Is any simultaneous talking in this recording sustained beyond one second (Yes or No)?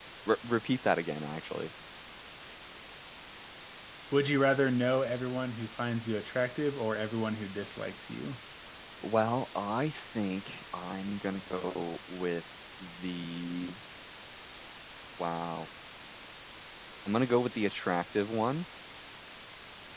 No